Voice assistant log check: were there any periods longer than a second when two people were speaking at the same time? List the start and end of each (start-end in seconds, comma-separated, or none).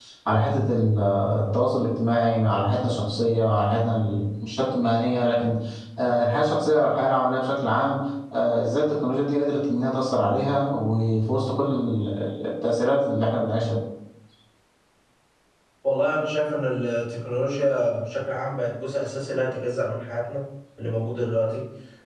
none